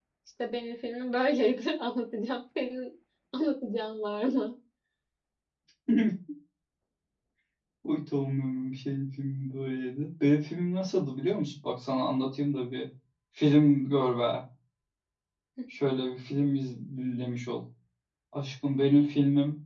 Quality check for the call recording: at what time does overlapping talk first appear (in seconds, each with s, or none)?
none